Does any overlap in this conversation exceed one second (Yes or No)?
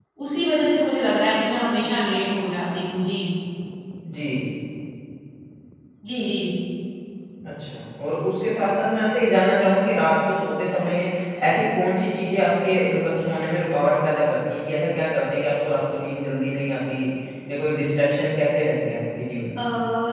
No